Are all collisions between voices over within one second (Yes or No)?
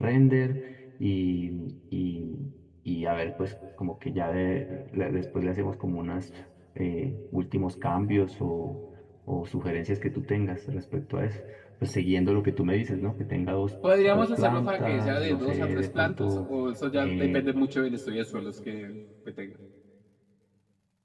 No